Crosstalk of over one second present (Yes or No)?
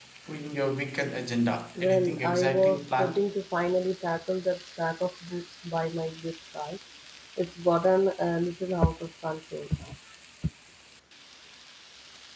Yes